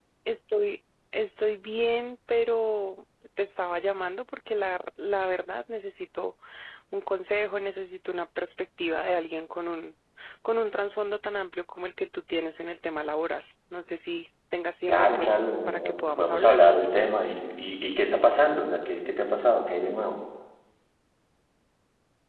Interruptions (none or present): present